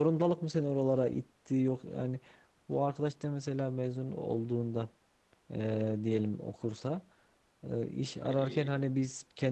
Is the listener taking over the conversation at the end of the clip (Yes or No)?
No